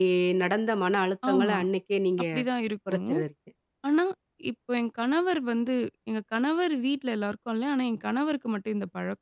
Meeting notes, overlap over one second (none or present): none